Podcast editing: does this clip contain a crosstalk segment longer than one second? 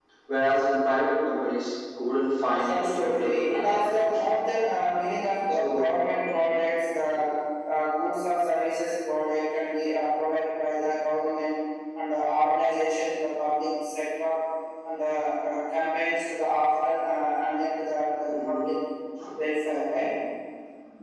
Yes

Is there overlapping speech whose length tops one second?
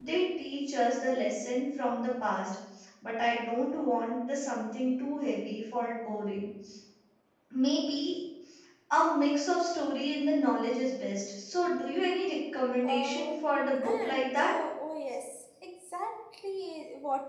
Yes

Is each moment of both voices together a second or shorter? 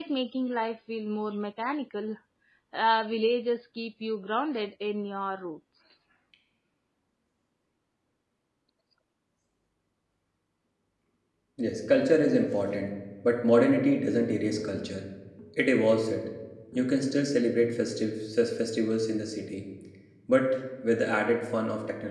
Yes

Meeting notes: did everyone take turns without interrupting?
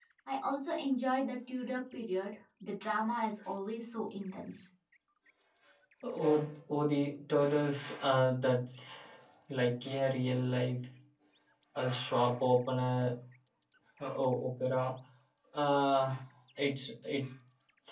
Yes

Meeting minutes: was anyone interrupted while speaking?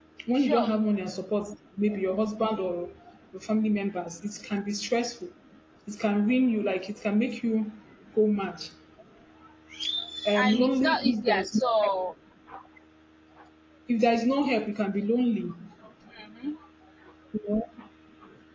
Yes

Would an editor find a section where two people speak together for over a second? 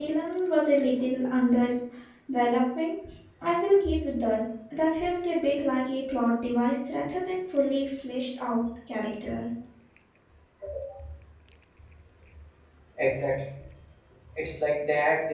No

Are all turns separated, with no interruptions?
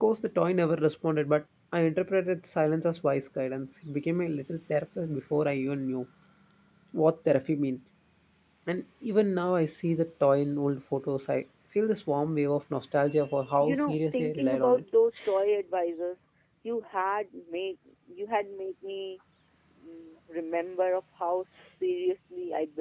No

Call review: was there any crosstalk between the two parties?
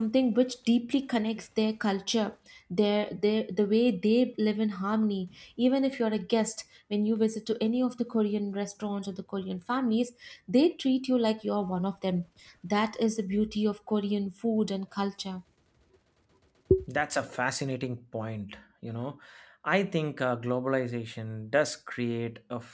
No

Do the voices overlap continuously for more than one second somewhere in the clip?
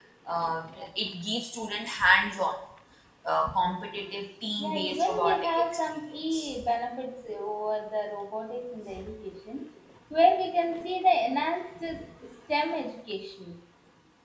Yes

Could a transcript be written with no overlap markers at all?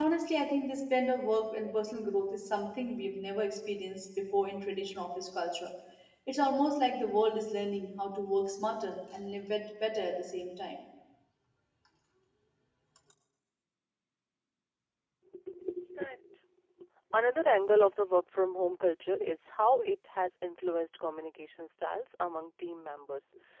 Yes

